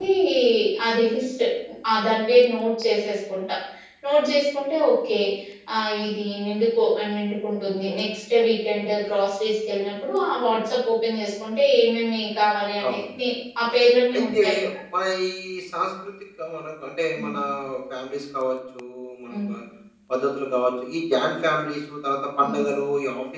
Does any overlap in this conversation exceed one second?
No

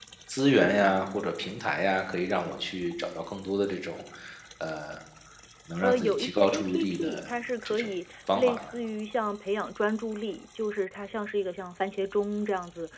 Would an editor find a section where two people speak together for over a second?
Yes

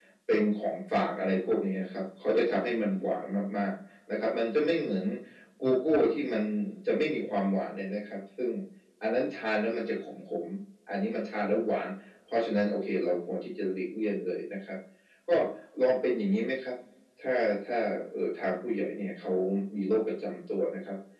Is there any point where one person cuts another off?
No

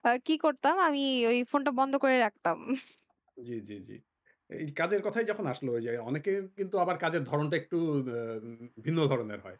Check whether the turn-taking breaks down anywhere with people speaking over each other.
No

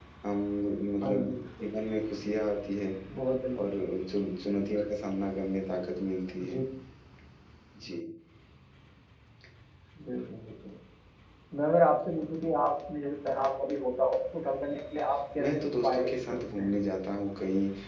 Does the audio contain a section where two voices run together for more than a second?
Yes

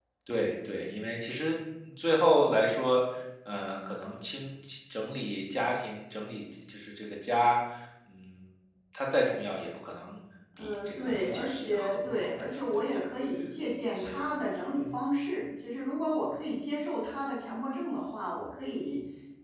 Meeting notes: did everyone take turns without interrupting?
No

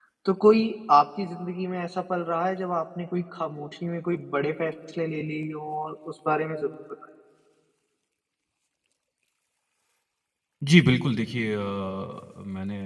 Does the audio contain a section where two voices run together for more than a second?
No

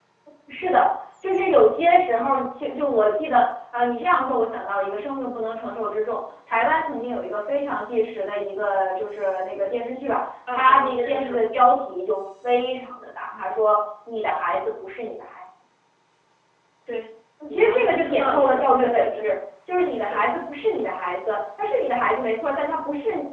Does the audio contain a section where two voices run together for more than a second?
Yes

